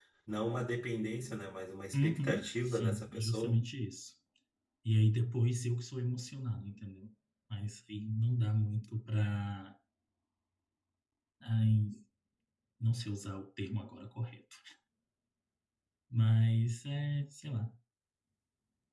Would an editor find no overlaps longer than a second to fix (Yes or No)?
No